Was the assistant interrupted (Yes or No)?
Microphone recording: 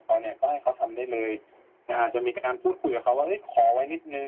No